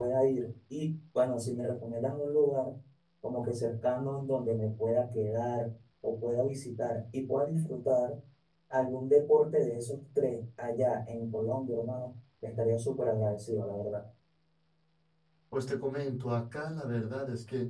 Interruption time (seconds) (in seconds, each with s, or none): none